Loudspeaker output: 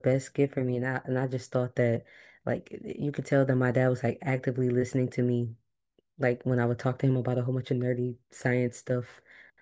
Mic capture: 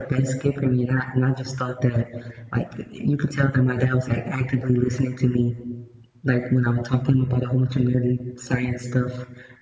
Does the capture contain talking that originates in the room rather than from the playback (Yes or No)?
No